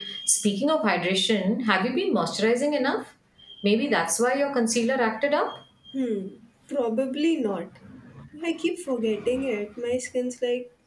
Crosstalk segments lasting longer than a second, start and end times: none

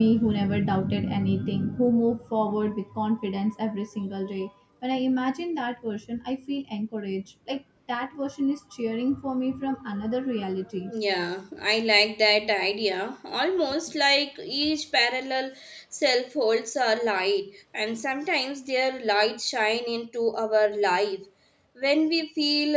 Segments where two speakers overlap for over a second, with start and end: none

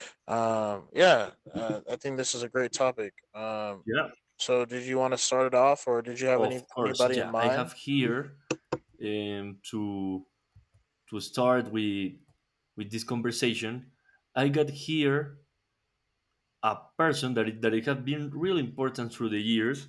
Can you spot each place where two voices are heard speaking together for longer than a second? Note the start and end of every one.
6.4-7.7

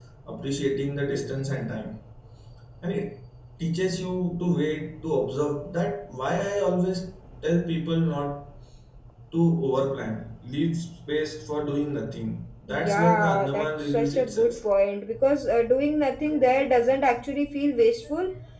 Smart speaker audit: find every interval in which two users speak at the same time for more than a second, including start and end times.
12.7-14.6

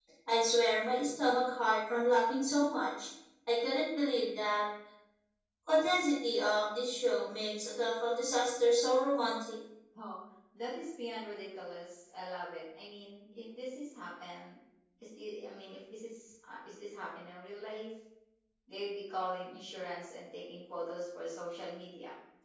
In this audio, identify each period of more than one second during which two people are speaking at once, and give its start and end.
none

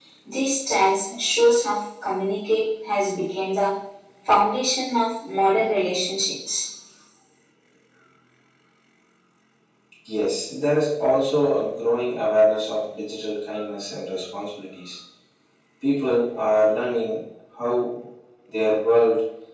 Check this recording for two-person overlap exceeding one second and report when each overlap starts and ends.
none

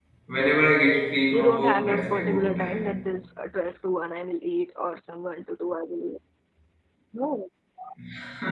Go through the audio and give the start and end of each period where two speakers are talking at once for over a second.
1.3-3.0

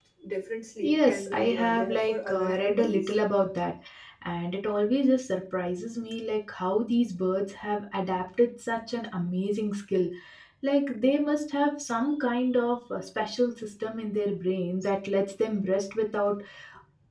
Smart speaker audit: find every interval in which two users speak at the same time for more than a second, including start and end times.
0.8-3.1

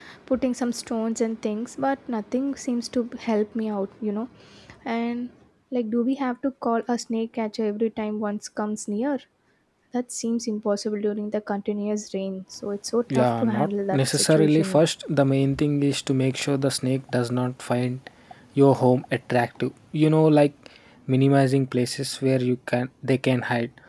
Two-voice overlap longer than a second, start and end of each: 13.1-14.8

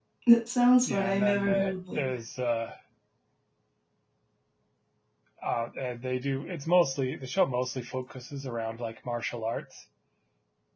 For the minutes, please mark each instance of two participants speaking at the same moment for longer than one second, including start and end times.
0.9-2.1

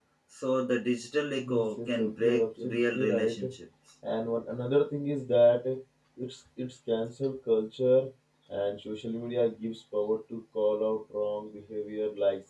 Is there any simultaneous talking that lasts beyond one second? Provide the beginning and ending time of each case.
1.4-3.3

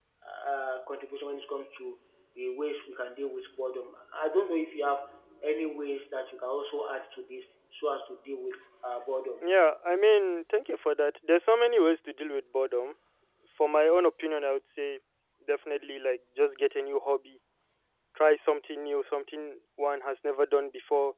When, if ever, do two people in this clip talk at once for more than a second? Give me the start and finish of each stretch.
none

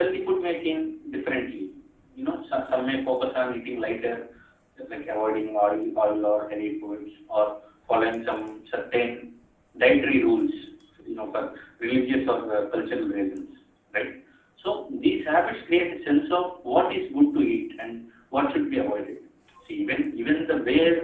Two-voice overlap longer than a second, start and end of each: none

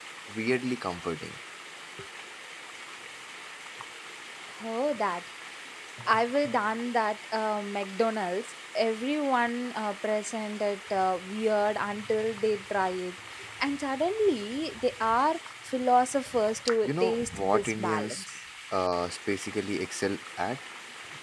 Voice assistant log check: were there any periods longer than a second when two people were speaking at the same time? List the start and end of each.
16.8-18.3

